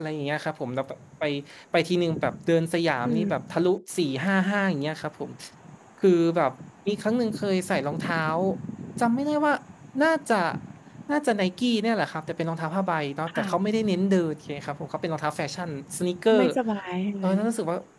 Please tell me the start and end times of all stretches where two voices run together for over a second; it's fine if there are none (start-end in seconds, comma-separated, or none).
none